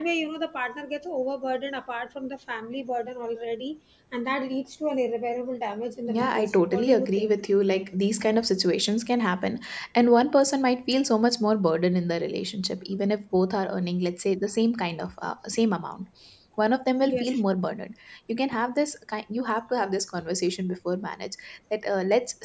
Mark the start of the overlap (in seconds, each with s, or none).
6.1 s